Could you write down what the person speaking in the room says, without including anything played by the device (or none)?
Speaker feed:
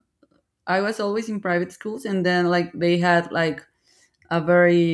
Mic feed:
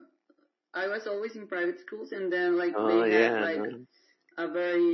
Oh yeah, no. know.